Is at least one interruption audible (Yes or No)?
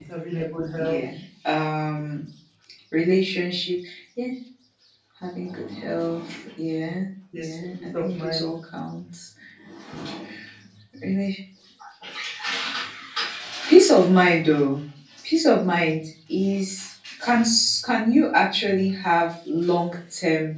Yes